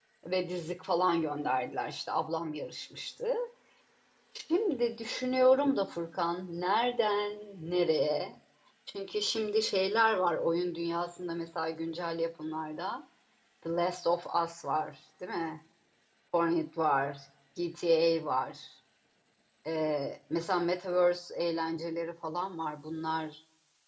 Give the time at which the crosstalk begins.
none

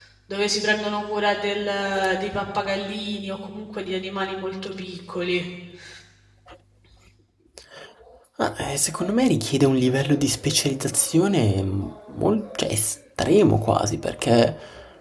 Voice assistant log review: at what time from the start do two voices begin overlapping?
none

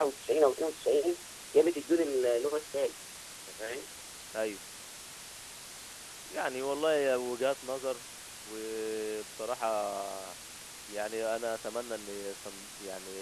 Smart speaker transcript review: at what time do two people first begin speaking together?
none

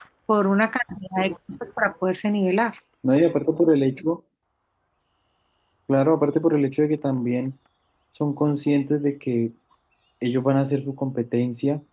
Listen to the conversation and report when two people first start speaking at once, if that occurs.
none

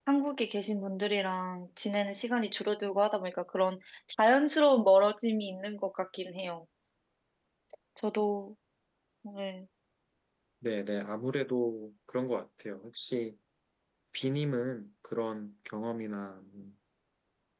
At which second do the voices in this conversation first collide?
none

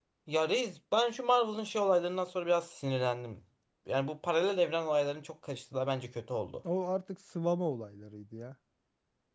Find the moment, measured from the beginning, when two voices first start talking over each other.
none

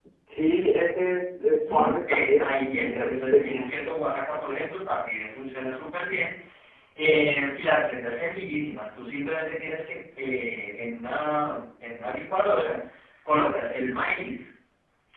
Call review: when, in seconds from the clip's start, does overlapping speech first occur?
2 s

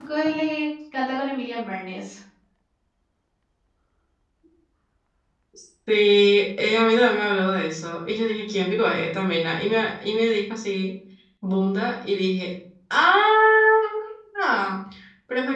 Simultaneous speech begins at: none

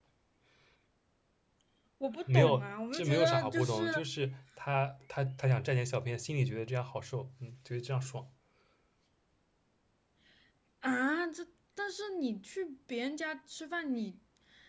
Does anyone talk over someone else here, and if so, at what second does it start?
2 s

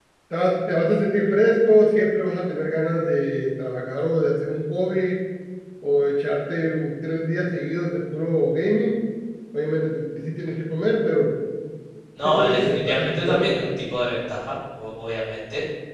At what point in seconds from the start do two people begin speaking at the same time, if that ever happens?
12 s

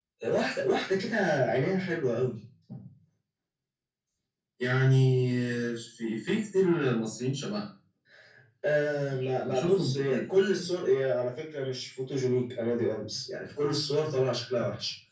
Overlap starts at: 9 s

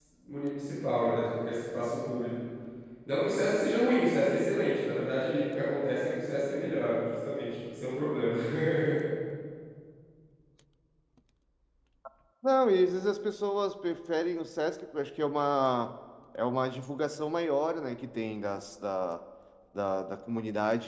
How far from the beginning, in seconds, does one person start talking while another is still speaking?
none

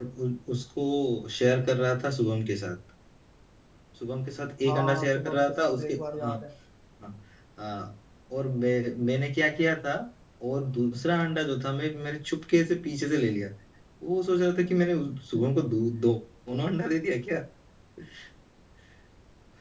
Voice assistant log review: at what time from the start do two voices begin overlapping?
5 s

